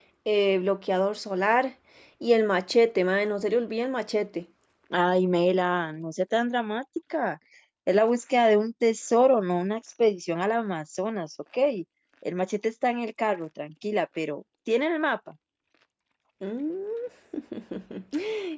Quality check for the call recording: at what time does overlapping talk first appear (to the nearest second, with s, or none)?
none